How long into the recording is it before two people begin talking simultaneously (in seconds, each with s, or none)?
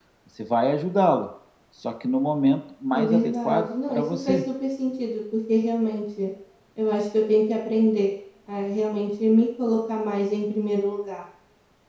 2.9 s